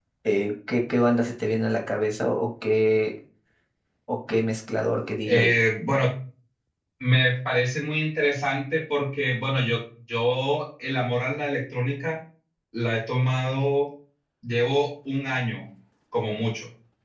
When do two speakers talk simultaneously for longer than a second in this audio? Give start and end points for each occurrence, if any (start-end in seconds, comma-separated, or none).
none